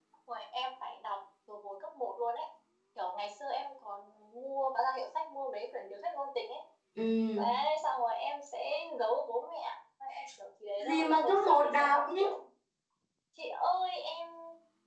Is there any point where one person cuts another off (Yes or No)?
Yes